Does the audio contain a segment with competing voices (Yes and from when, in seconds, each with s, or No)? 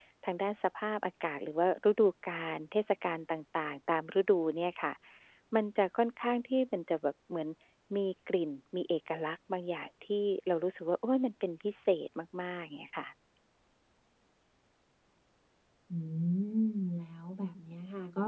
No